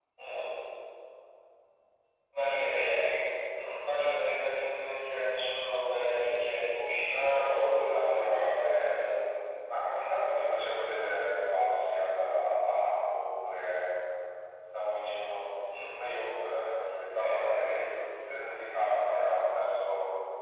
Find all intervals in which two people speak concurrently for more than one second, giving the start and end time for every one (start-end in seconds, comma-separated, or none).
7.1-9.1